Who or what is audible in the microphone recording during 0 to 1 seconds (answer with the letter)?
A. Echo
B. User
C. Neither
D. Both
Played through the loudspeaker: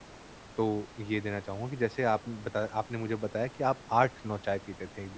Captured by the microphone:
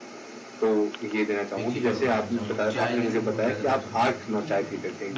A